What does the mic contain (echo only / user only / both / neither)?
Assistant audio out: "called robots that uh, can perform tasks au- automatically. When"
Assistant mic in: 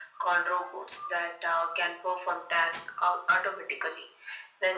echo only